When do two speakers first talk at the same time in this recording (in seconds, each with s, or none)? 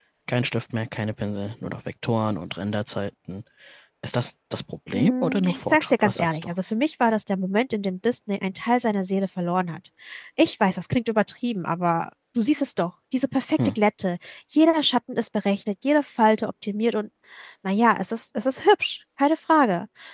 4.9 s